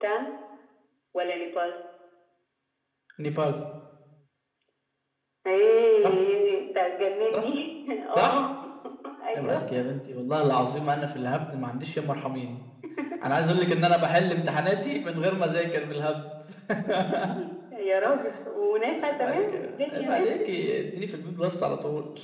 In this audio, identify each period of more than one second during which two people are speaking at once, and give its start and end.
18.9-20.6

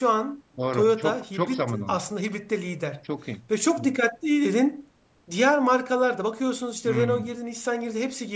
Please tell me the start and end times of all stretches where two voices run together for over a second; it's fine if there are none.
0.7-2.0

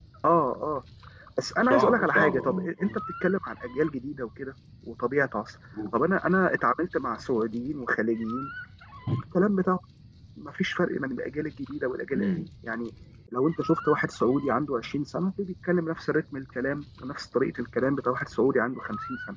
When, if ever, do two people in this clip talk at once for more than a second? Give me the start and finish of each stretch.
1.6-3.0

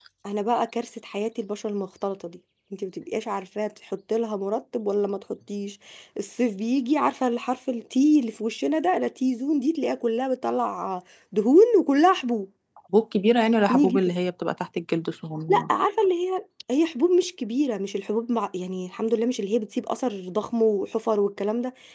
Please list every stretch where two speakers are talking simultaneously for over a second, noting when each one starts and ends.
none

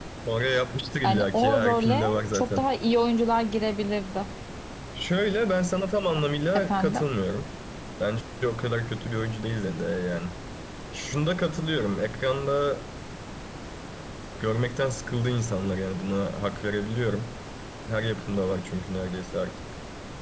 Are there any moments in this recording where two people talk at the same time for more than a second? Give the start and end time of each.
1.0-2.7

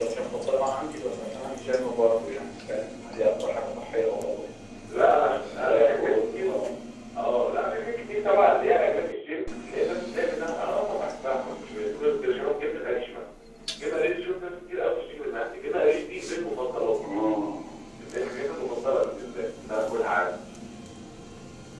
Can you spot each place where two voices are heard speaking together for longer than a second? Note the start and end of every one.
5.2-6.6

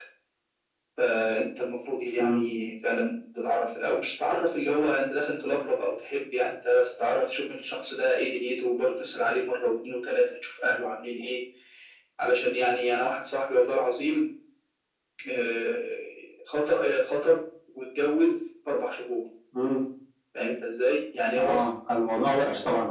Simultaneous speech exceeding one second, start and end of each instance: none

